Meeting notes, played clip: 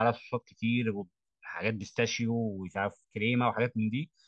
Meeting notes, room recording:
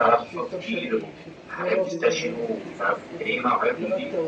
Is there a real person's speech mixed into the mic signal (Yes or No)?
Yes